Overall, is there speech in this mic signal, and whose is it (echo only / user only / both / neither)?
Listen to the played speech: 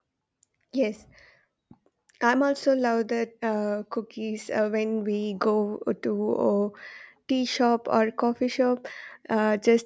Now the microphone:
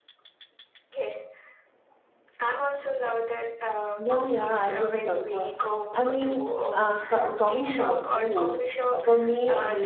both